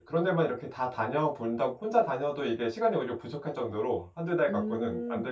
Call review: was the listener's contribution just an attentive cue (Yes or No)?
No